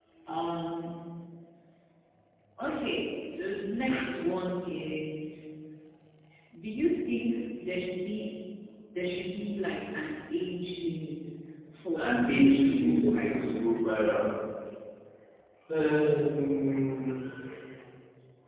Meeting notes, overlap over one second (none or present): present